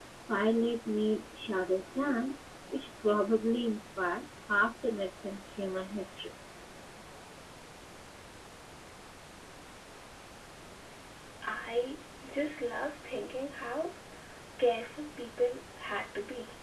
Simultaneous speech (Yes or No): No